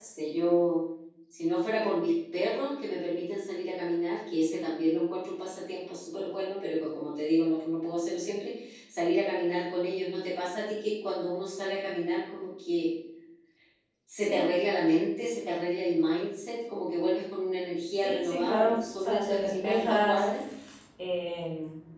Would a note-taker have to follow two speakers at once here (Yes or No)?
Yes